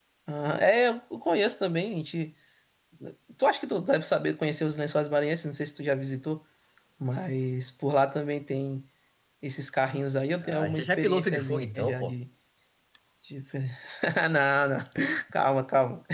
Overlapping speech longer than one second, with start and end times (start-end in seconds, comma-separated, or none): 10.4-12.1